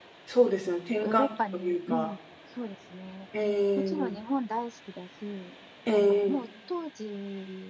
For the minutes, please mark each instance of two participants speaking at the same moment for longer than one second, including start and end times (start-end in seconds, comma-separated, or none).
0.7-2.1